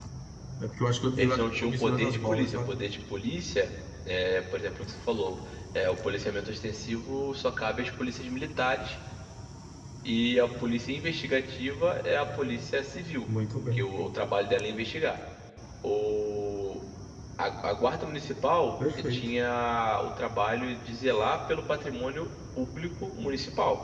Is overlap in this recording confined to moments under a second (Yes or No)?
No